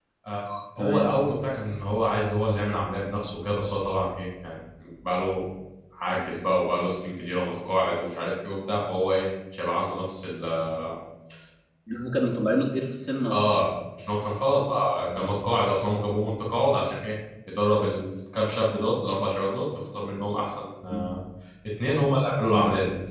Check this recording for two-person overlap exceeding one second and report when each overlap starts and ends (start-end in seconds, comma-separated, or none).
none